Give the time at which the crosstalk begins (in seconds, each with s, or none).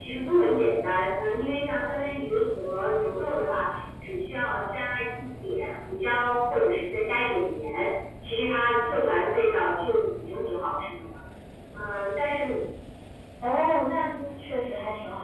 none